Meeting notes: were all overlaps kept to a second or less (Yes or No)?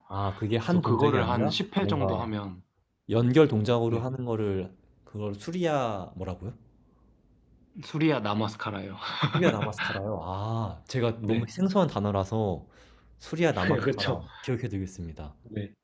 No